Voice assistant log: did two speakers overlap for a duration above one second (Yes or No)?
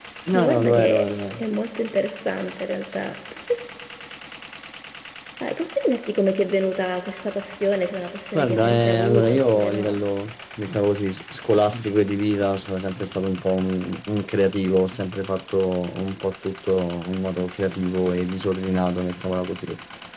Yes